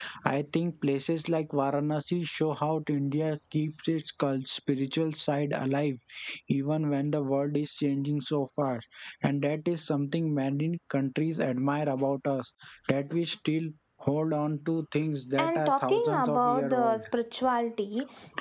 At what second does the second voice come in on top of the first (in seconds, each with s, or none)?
15.4 s